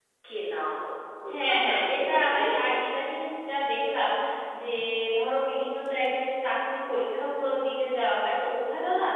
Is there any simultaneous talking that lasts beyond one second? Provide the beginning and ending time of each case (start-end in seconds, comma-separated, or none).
1.3-2.6